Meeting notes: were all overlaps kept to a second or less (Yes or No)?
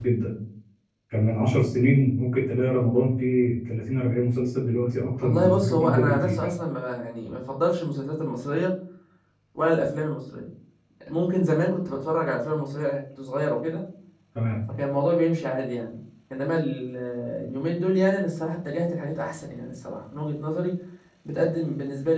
No